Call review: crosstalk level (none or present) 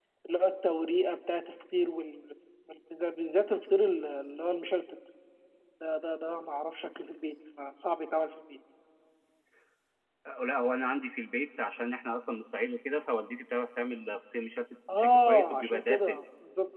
present